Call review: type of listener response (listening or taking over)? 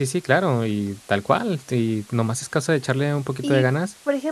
taking over